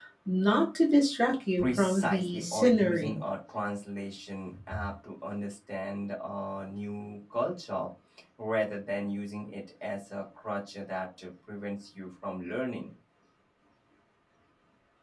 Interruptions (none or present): present